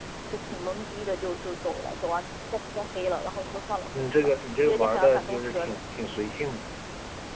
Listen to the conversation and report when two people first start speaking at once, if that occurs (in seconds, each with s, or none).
3.4 s